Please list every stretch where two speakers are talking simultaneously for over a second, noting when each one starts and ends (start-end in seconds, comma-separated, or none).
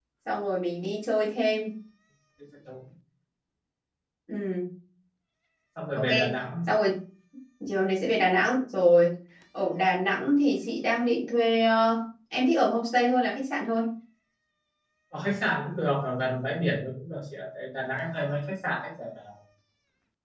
none